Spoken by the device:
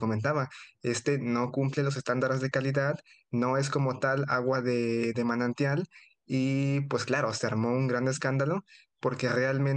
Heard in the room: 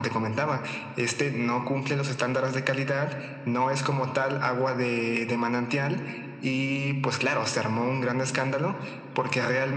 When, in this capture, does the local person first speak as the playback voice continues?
none

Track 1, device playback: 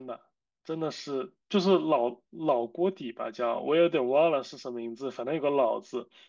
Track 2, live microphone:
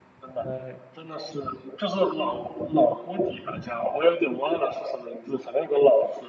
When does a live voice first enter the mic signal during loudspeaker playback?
0.4 s

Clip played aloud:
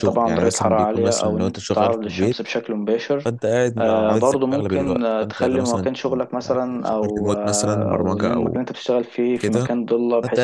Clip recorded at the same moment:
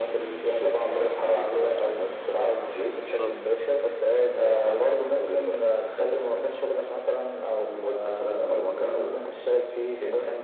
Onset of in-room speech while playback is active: 2.9 s

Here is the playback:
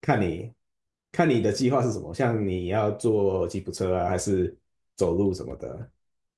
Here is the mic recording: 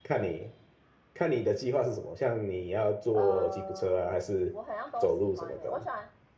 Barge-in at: 3.1 s

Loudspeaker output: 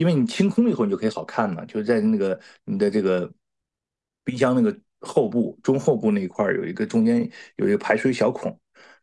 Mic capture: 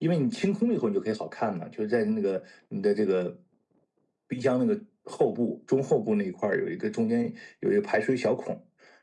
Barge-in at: none

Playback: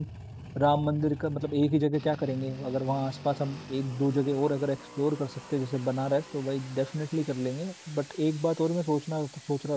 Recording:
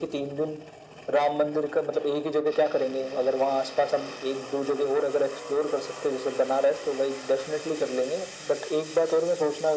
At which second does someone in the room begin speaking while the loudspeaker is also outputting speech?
none

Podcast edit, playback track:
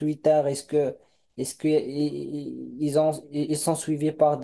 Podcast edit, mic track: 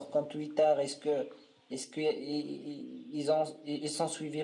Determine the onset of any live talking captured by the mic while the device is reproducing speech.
none

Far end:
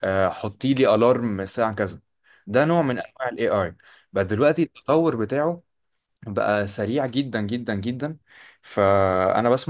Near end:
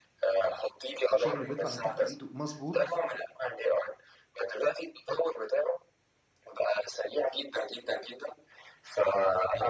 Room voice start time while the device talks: 1.1 s

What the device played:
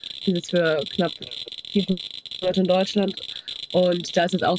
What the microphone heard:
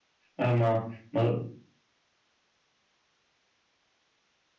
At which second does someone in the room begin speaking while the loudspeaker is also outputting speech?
0.4 s

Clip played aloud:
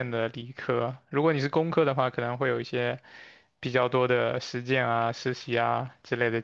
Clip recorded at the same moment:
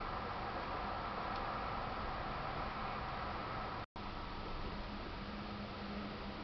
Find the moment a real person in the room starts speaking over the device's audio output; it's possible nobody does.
none

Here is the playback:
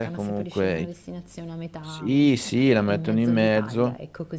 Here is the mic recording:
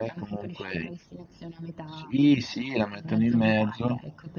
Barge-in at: none

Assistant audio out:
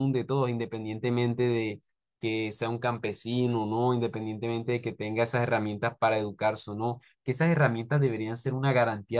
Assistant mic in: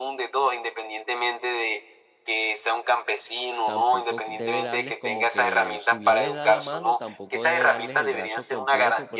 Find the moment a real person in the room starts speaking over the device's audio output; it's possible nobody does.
3.6 s

